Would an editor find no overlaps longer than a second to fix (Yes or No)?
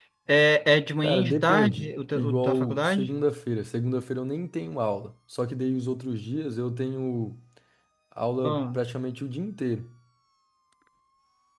No